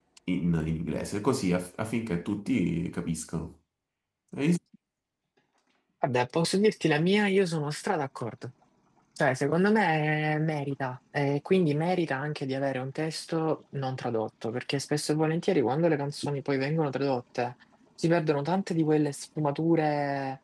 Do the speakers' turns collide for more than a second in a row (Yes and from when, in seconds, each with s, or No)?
No